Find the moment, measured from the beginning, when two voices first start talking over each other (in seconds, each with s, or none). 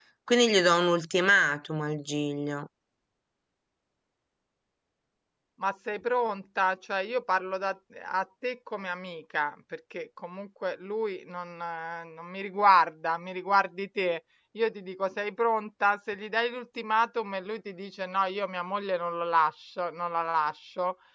none